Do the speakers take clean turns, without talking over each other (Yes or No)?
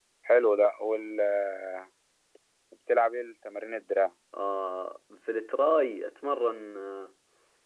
Yes